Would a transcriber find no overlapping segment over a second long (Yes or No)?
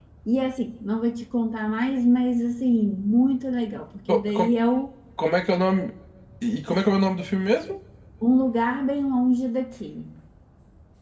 Yes